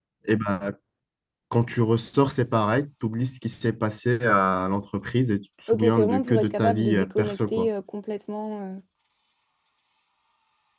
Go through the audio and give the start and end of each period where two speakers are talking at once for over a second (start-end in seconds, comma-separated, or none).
5.7-7.7